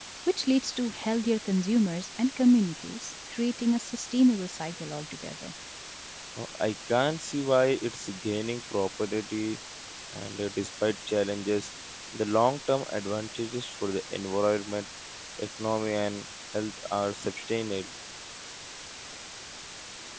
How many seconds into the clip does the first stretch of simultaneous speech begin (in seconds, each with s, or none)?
none